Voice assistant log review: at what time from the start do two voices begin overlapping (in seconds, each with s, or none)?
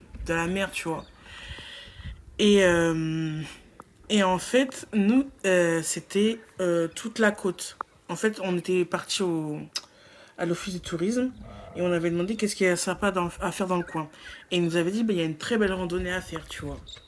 none